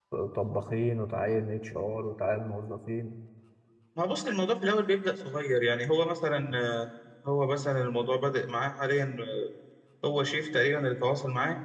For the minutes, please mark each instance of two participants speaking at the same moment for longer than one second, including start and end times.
none

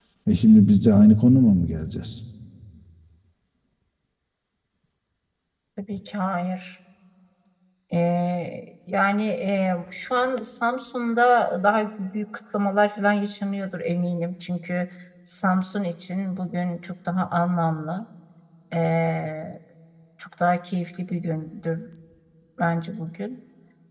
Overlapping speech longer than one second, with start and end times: none

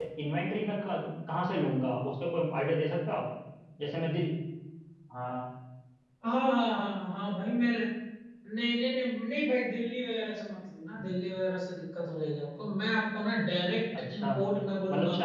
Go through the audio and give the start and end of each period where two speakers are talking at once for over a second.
none

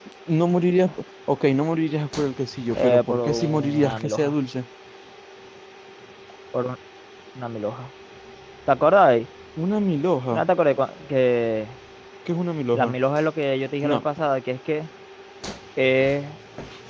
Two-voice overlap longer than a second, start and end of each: 2.8-4.3

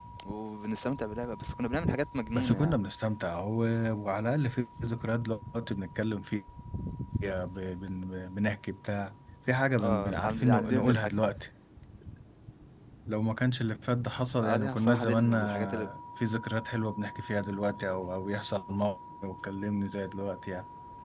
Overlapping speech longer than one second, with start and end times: 9.8-11.1, 14.4-15.9

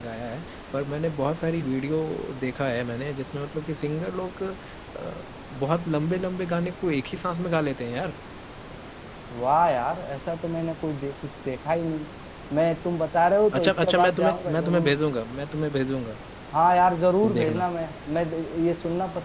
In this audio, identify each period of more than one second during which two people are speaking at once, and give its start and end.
13.6-14.9

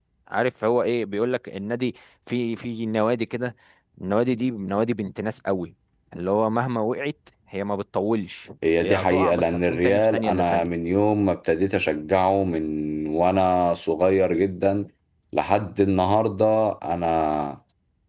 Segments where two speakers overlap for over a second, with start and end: 8.8-10.7

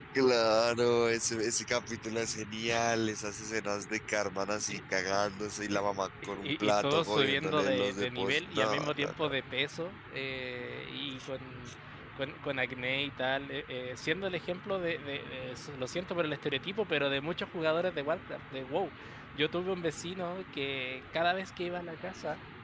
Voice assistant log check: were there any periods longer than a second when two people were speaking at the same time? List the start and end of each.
6.2-9.1

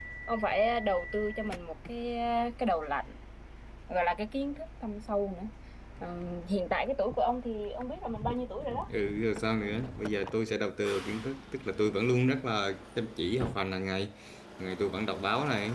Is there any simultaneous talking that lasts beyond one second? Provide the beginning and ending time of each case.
none

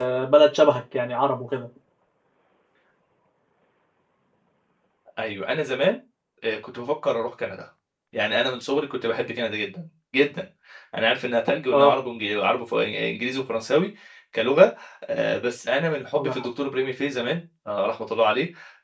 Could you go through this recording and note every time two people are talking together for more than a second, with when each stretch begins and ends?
none

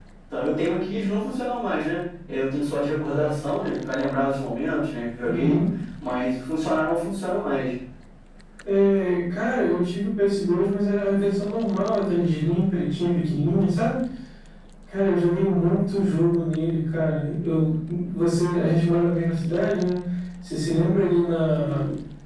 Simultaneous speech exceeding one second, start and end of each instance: none

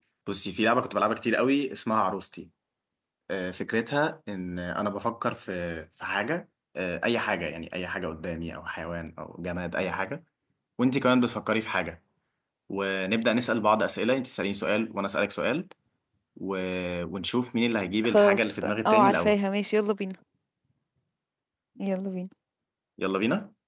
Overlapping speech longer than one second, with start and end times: 18.1-19.4

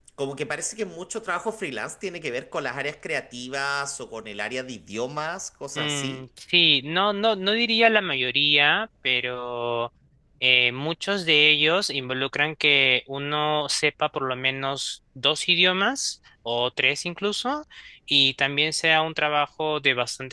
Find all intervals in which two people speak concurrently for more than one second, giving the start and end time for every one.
none

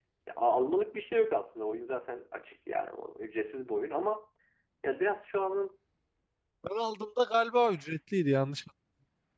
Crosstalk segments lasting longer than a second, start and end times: none

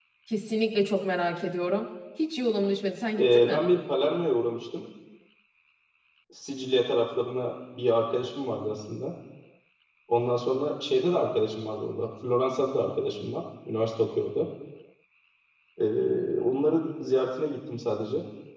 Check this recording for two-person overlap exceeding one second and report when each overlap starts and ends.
none

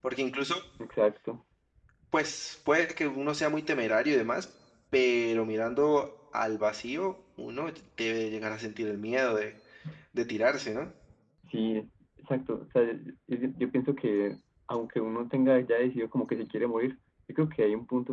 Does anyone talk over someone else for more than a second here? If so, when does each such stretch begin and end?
none

